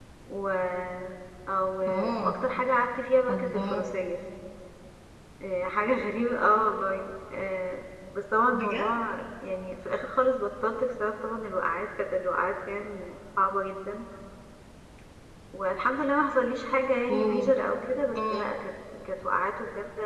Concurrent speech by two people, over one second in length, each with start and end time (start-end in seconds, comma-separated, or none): none